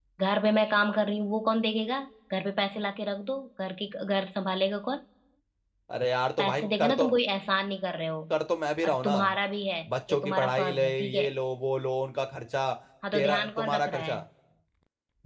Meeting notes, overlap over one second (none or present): present